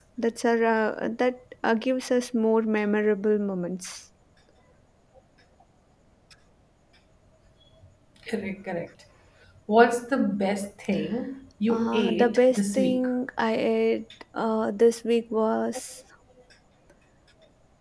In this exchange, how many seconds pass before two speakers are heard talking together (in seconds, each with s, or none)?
11.7 s